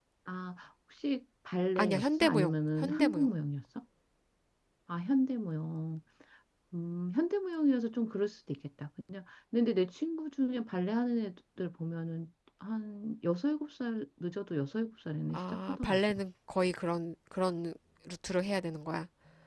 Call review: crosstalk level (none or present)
present